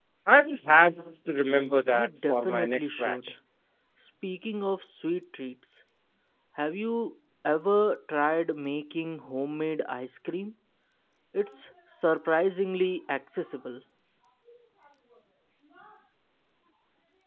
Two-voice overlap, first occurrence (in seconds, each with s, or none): 1.9 s